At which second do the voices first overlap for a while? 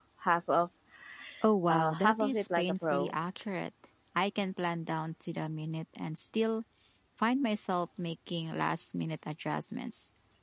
1.7 s

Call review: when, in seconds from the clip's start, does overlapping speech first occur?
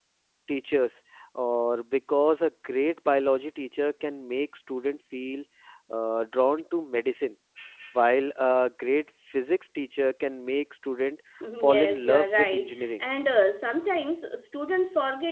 11.6 s

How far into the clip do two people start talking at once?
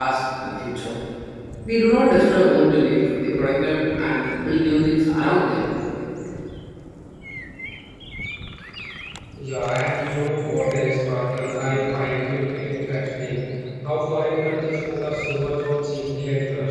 none

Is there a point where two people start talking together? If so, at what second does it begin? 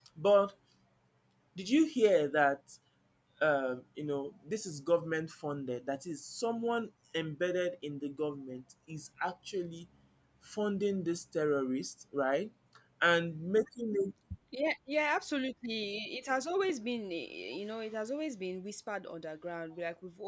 none

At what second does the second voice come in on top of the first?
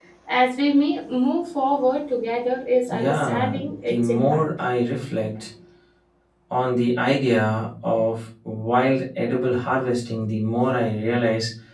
2.9 s

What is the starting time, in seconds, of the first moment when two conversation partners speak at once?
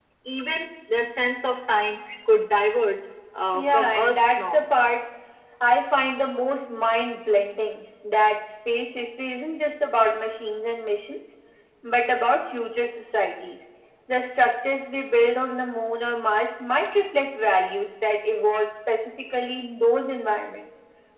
3.5 s

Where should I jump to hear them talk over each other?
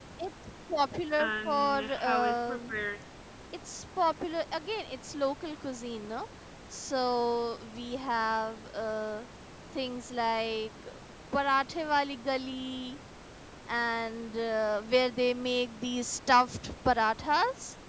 1.2 s

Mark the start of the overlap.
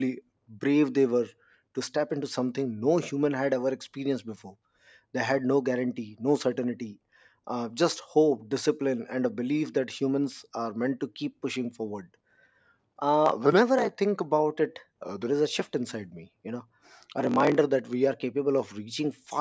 none

